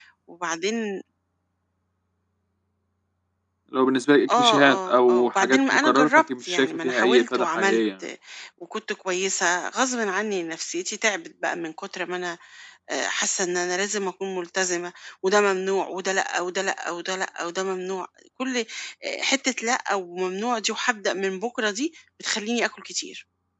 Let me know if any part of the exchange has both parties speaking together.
Yes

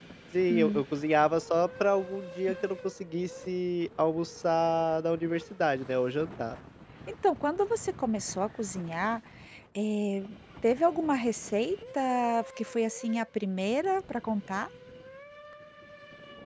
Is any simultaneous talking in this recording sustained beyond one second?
No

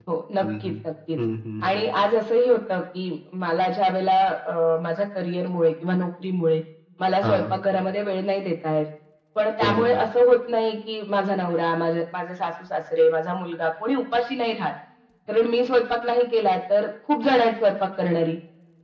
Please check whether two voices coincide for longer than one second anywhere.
No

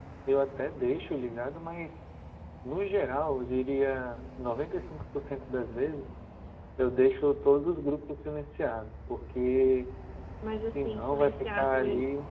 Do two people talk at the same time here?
Yes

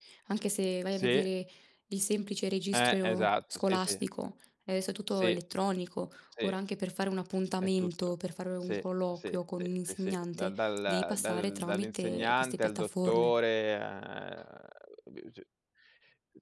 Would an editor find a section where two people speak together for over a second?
Yes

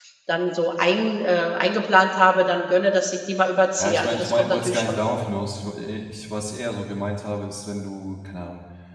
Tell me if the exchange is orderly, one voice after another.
No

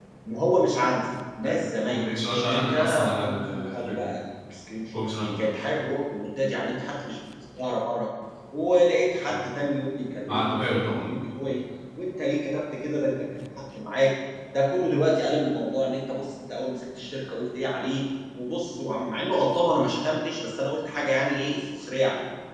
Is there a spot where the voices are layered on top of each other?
Yes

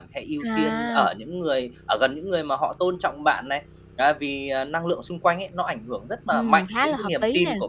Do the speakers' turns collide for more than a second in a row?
Yes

